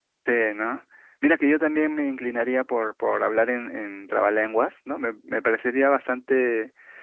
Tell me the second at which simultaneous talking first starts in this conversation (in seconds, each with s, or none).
none